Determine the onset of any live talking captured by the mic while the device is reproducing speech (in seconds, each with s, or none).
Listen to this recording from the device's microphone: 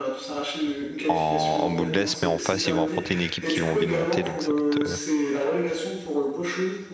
1.1 s